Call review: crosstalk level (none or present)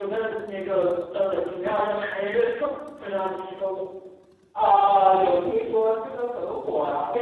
none